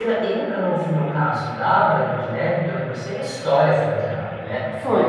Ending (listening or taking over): listening